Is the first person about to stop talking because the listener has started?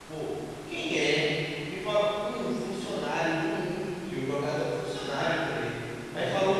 No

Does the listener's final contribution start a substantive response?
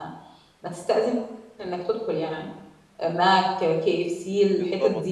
Yes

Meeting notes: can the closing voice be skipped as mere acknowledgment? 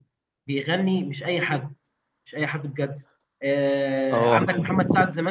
Yes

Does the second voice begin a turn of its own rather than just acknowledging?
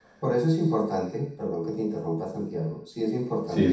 No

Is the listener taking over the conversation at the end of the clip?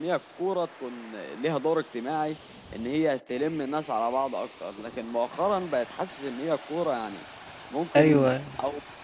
No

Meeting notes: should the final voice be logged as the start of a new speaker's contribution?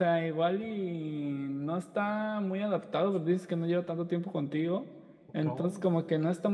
No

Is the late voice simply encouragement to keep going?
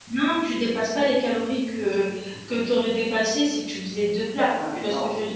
No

